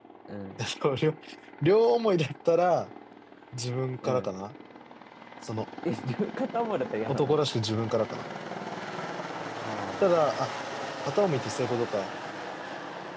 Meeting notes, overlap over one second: none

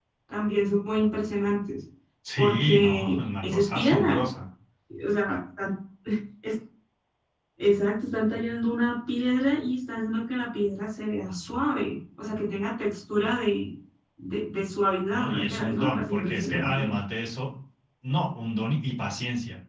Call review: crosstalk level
present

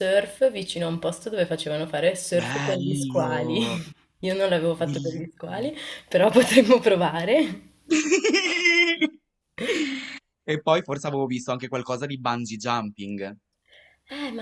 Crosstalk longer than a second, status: present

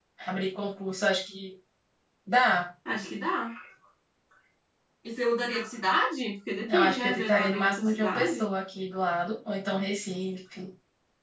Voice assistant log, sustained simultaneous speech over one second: present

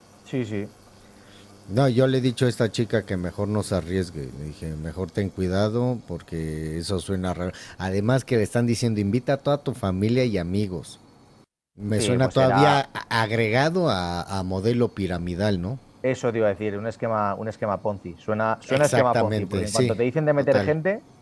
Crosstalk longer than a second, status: present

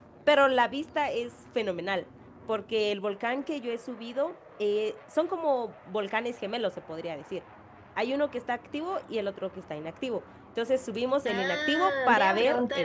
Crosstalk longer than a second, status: present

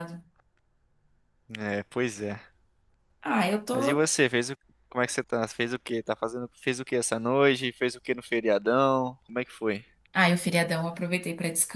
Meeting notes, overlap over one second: none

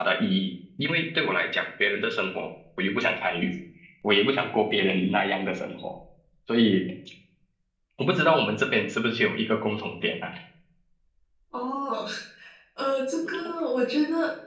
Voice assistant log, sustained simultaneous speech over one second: none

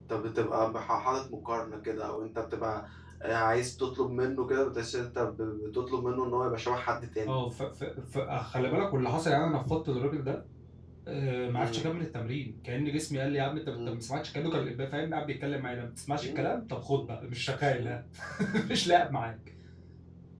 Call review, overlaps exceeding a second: none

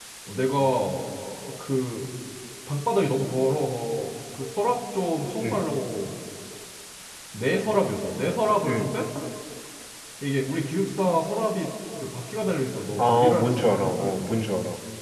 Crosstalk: present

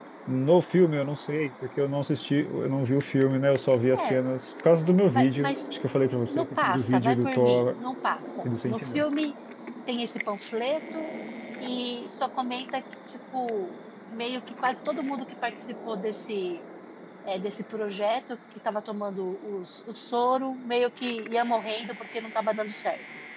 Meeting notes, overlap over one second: present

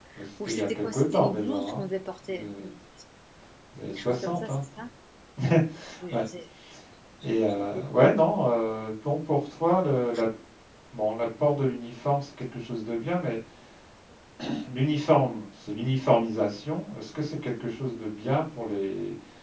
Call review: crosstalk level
present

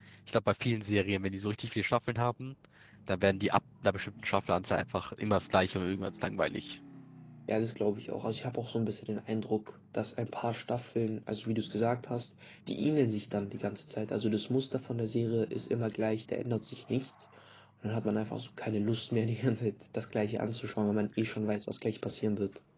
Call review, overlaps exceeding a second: none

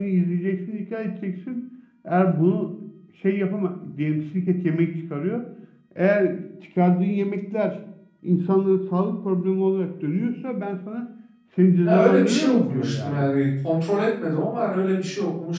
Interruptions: present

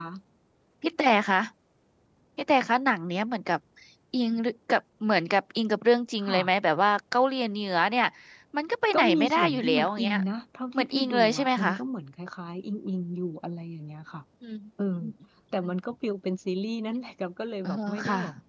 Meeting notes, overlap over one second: present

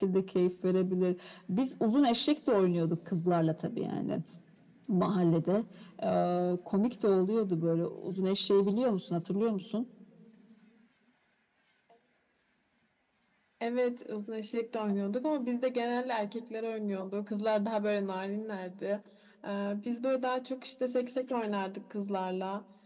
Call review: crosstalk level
none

